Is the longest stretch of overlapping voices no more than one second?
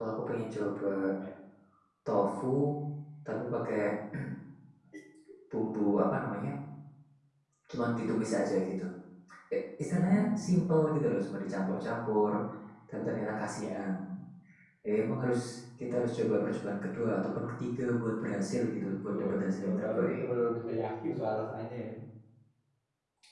No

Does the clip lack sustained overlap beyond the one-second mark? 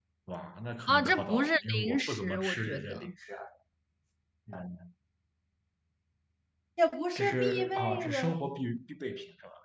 No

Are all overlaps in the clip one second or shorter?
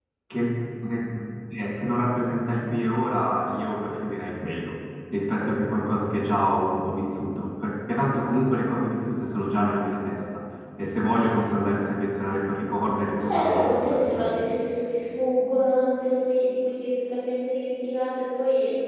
No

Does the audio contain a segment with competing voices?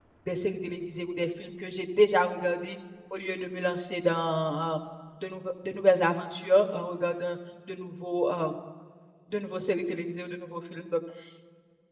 No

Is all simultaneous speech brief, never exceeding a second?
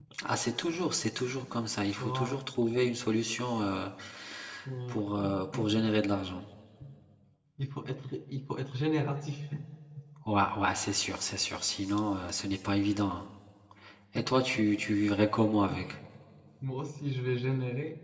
Yes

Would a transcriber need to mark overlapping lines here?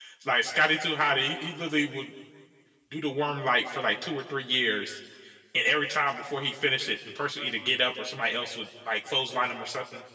No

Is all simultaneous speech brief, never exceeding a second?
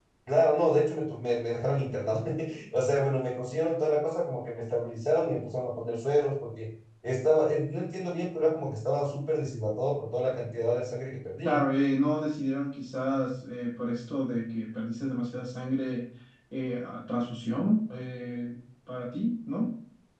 Yes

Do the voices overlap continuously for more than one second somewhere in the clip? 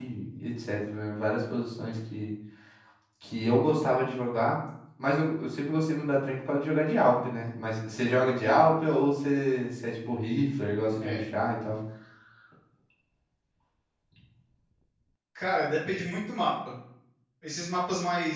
No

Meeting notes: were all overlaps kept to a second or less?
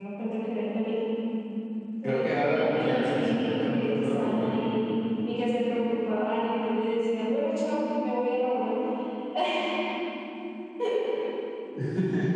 No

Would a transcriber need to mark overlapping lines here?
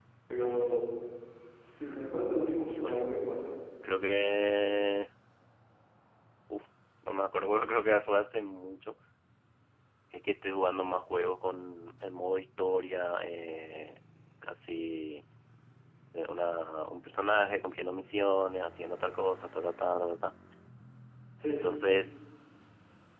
Yes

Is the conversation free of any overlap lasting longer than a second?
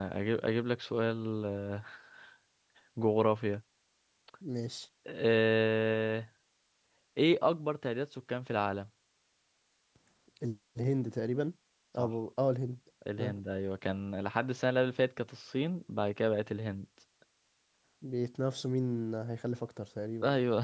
Yes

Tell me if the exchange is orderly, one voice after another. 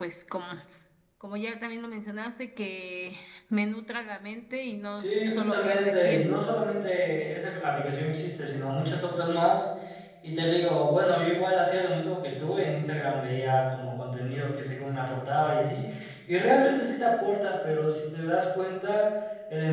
No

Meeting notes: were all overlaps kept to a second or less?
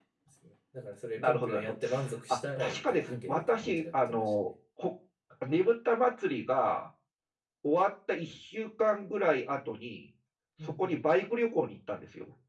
No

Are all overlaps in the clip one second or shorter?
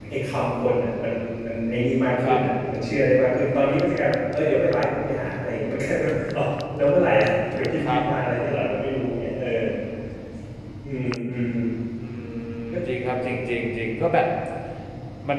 Yes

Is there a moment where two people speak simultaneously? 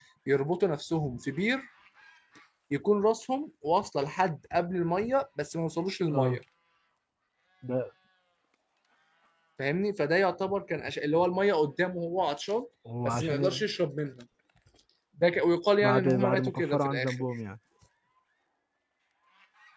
Yes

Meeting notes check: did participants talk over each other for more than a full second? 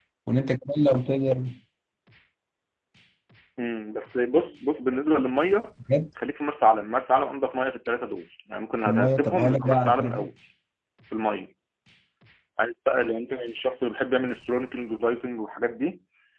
Yes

